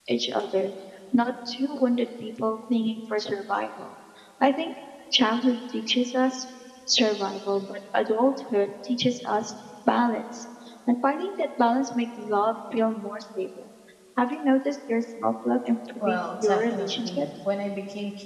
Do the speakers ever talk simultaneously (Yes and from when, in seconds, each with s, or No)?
Yes, from 16.0 s